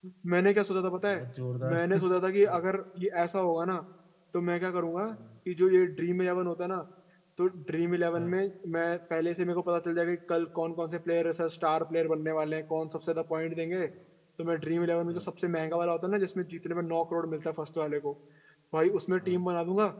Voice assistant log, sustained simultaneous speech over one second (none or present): none